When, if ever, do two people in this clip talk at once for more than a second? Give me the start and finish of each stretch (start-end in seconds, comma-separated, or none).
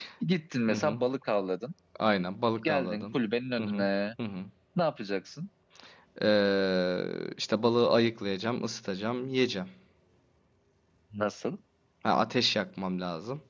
none